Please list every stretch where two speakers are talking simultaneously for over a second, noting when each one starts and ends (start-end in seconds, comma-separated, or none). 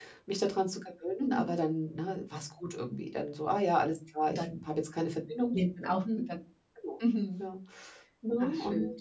none